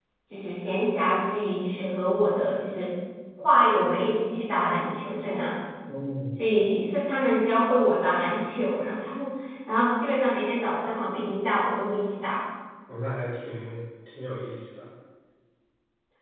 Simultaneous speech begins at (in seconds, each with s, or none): none